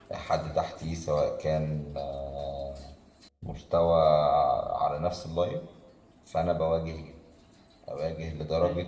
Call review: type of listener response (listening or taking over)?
listening